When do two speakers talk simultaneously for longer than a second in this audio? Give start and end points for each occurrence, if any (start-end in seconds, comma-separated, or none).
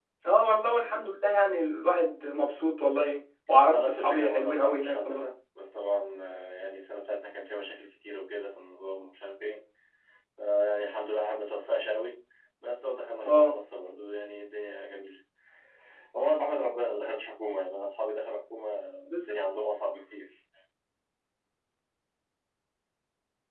3.7-5.3